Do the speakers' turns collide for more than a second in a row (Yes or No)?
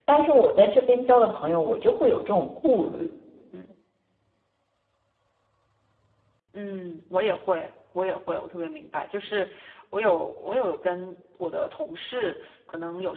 No